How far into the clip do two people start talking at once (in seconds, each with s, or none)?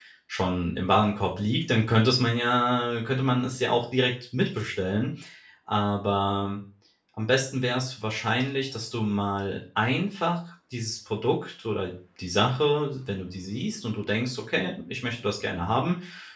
none